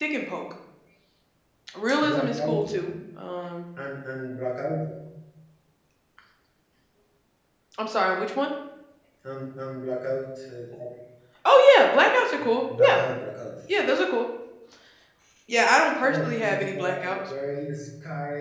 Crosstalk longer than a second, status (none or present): present